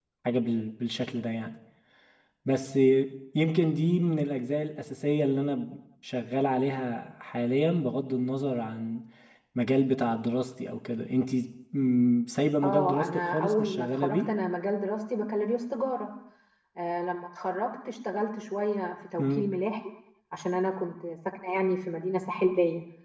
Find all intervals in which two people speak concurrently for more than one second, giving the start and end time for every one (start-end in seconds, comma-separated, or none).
12.6-14.2